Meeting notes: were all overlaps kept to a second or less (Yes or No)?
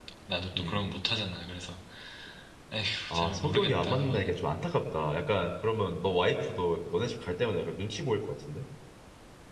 No